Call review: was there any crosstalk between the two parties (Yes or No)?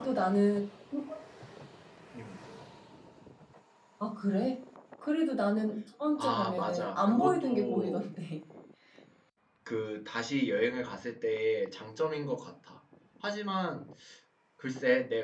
Yes